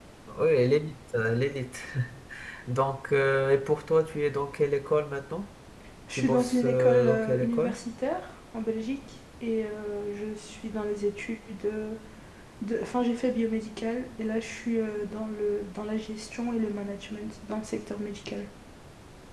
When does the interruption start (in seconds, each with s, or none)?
6.1 s